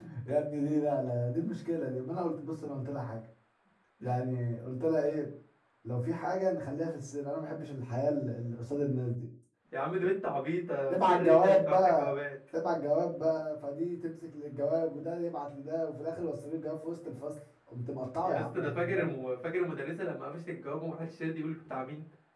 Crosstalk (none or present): present